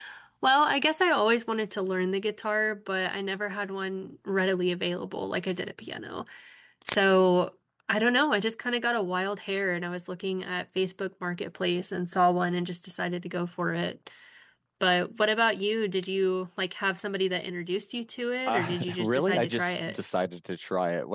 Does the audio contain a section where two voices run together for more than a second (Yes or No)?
Yes